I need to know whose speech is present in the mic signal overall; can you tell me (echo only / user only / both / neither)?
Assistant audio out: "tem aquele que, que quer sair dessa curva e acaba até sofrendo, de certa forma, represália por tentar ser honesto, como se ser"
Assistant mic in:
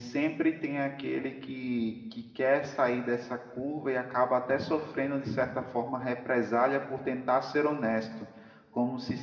echo only